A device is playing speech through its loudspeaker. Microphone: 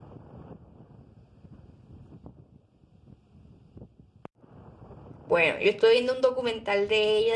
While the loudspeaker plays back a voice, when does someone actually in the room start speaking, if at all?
5.2 s

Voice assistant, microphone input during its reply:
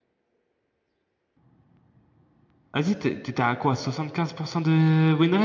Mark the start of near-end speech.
2.7 s

